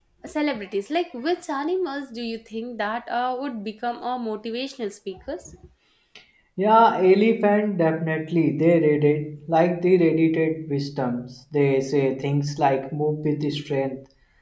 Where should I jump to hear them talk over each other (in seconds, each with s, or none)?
none